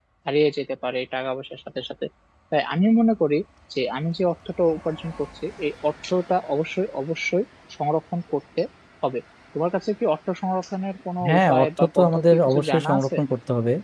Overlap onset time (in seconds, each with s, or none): 11.2 s